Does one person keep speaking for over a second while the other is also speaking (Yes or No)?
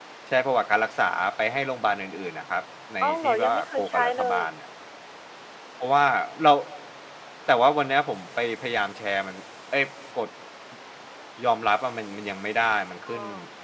Yes